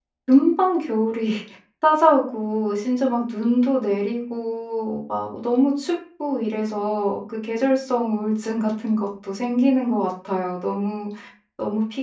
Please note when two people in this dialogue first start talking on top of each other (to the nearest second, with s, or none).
none